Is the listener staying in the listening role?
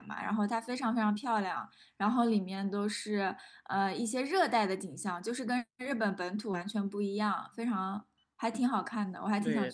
No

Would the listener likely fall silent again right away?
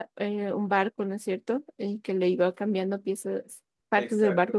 No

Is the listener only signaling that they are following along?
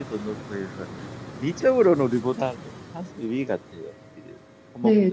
No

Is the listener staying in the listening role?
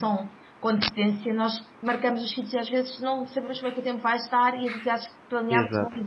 Yes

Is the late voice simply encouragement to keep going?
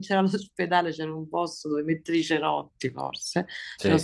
Yes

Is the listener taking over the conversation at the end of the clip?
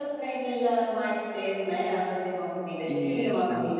No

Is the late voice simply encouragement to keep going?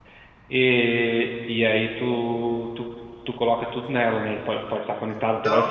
Yes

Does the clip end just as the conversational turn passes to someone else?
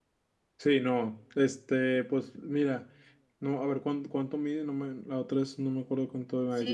Yes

